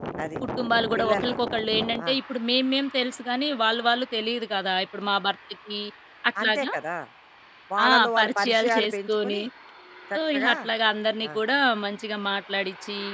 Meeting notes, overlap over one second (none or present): present